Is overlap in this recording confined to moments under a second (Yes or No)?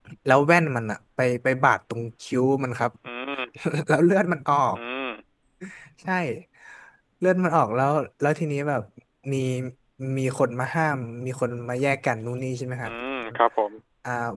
Yes